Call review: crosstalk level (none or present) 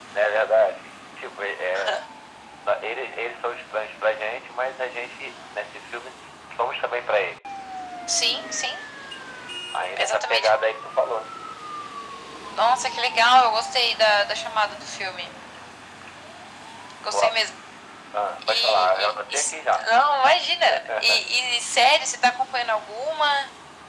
present